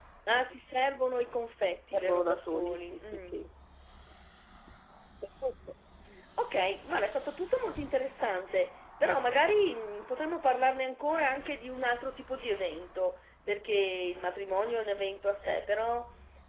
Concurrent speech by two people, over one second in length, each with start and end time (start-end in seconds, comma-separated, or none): 1.9-3.3